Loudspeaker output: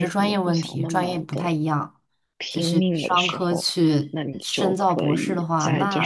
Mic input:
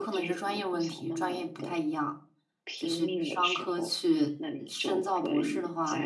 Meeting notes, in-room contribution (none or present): none